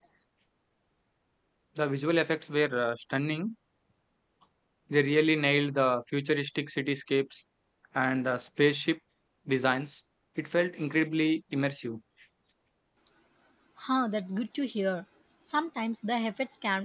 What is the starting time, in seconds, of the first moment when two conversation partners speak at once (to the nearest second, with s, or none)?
none